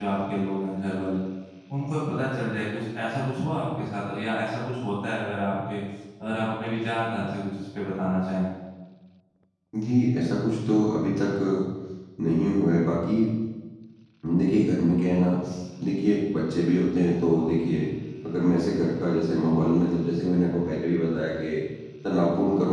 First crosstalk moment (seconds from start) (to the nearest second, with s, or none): none